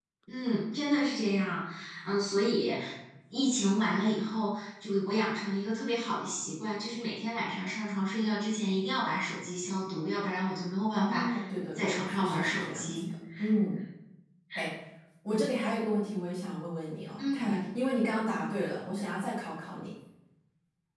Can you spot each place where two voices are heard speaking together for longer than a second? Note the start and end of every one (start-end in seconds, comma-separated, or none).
11.8-13.0